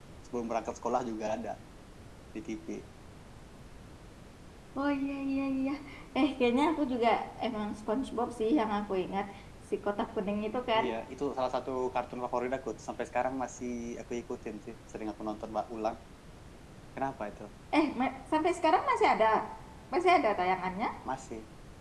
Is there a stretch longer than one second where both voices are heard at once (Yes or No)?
No